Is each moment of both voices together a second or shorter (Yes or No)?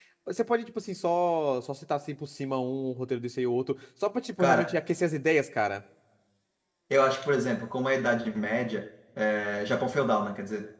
Yes